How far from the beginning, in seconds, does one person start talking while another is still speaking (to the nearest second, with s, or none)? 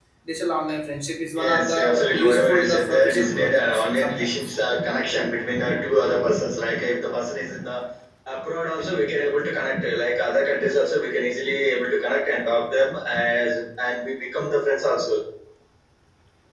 1 s